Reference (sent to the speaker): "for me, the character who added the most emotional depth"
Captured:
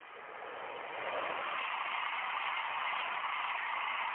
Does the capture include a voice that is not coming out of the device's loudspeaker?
No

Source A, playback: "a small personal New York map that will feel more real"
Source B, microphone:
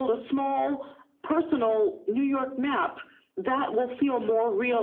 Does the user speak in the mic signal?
No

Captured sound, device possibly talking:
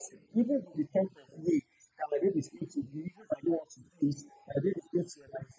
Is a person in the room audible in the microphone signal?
No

